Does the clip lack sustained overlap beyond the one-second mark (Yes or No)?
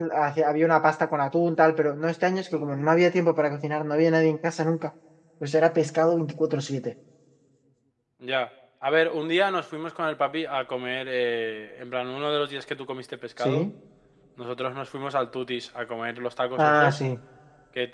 Yes